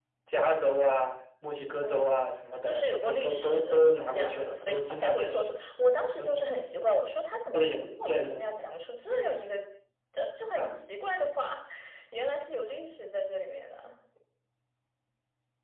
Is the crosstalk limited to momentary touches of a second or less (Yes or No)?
No